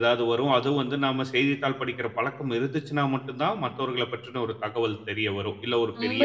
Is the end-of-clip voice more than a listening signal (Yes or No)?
Yes